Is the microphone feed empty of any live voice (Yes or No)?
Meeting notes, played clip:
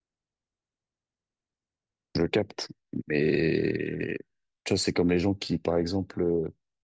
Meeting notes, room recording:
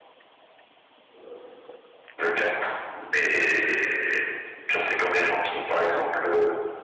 Yes